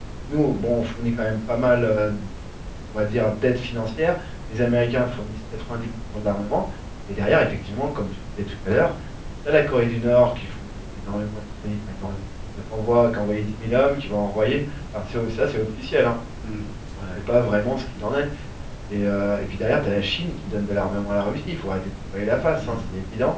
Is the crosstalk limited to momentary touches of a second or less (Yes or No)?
Yes